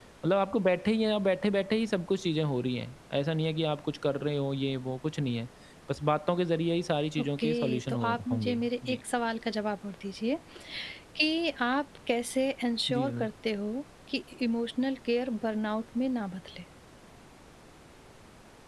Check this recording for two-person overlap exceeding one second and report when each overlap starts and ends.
7.2-9.0

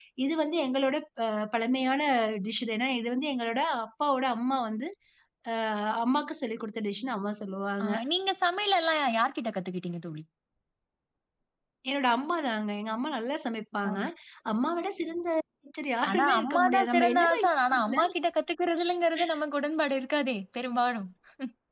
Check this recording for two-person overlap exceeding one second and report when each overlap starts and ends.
16.1-18.0

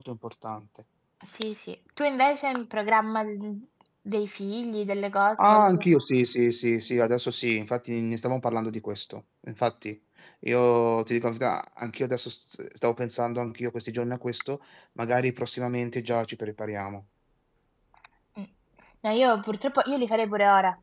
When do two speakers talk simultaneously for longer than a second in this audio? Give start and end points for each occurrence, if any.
none

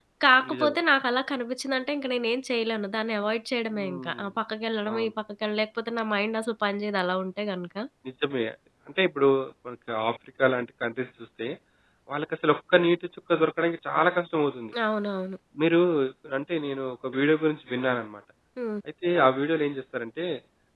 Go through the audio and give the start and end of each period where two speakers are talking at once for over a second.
none

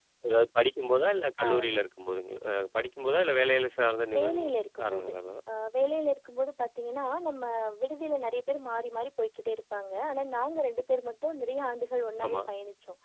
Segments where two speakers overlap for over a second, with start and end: none

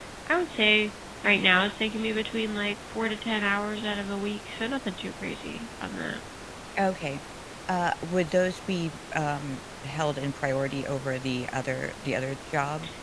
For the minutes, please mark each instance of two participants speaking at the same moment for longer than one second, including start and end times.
none

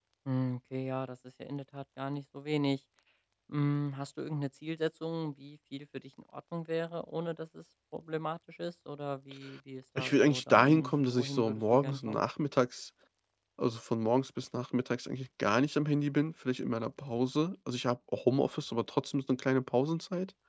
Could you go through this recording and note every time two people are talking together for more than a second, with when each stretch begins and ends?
10.0-12.2

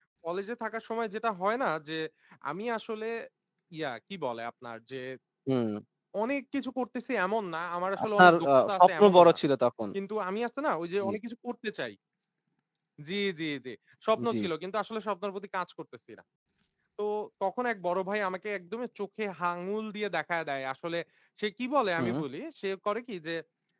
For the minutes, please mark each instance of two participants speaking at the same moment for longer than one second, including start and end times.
8.1-9.4

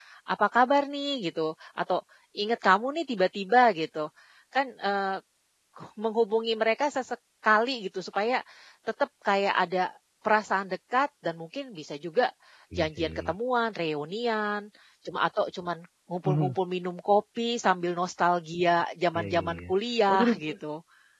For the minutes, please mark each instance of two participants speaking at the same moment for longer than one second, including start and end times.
none

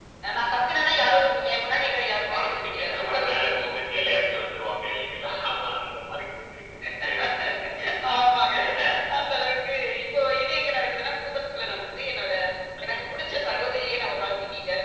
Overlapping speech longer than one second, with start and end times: 1.8-4.0

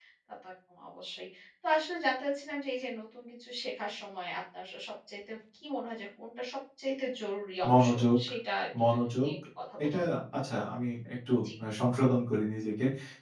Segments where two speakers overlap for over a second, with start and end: none

